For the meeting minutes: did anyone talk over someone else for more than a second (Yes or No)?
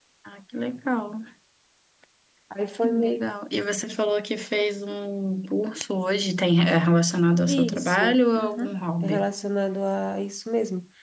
Yes